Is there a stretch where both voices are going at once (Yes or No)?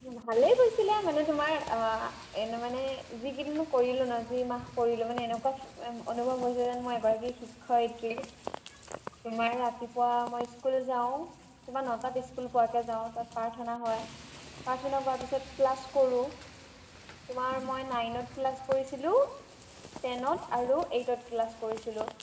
No